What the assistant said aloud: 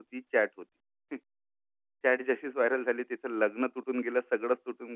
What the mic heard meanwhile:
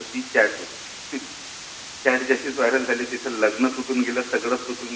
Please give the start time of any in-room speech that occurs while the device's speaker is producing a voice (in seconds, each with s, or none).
none